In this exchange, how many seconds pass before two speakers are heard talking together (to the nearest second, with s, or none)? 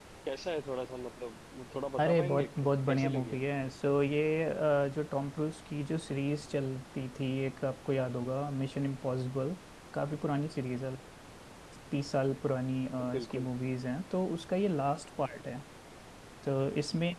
2 s